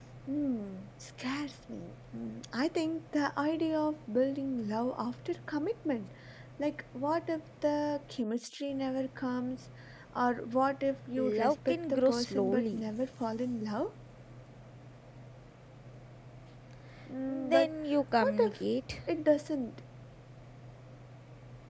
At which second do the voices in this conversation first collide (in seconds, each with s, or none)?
11.2 s